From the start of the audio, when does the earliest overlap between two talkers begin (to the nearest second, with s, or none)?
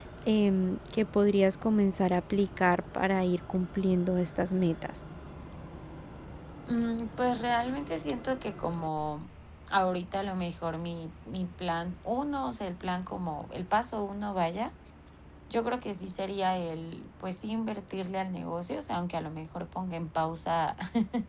none